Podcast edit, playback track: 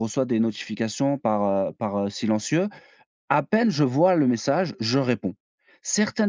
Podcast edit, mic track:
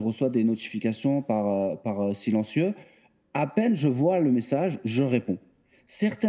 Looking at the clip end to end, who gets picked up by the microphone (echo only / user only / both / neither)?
echo only